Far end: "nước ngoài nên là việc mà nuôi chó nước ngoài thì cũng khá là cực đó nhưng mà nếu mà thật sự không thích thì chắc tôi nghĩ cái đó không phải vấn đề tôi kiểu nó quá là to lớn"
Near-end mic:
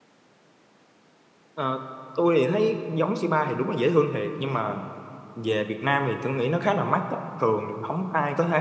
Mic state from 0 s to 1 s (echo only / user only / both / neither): neither